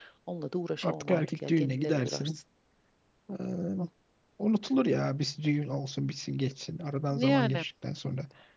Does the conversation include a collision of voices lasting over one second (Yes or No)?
Yes